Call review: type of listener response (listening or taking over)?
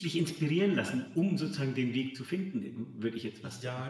taking over